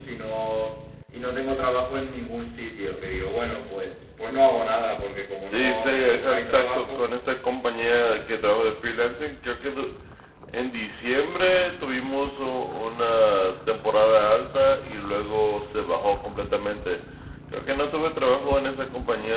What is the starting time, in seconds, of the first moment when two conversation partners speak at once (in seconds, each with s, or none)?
5.5 s